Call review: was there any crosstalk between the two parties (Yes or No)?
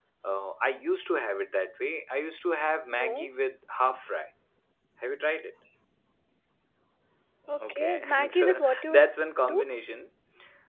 Yes